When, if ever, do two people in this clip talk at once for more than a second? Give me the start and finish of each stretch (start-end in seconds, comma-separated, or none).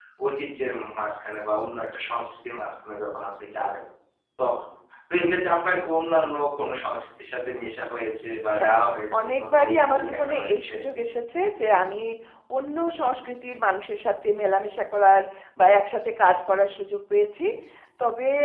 9.2-10.7